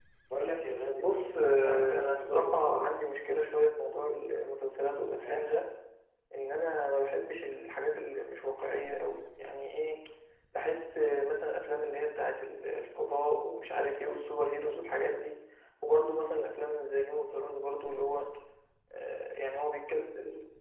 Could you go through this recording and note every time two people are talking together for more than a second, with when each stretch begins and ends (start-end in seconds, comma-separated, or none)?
1.0-2.9